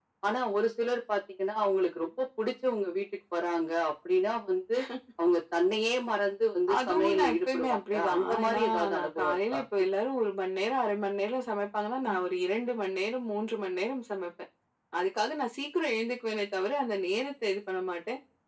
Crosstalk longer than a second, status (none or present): present